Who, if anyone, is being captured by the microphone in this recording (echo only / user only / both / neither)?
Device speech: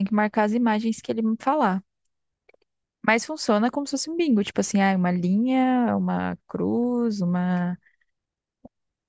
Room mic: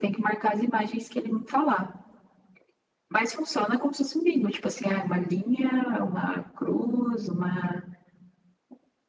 echo only